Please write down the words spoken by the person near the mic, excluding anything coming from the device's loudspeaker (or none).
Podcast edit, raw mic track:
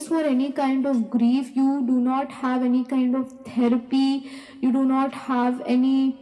none